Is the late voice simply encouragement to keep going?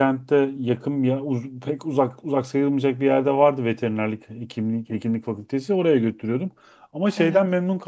Yes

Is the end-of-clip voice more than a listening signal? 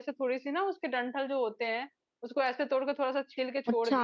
No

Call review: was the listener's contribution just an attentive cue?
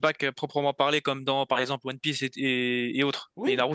No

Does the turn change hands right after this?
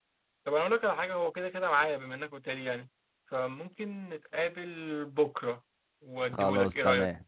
Yes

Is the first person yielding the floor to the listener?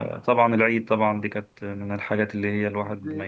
Yes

